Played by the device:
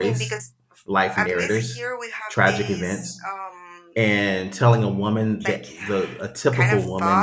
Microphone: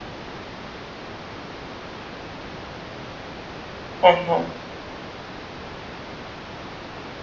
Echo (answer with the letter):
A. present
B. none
B